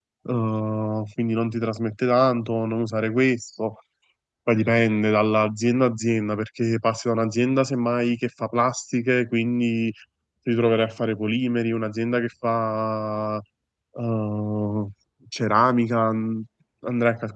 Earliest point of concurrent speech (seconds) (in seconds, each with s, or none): none